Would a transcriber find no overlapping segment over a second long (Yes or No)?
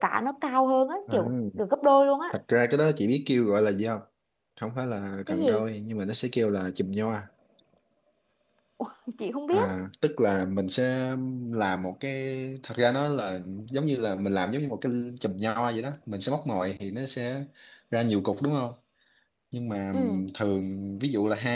Yes